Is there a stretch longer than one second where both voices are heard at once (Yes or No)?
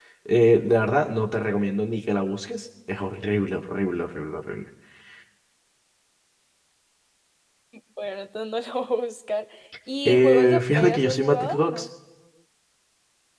Yes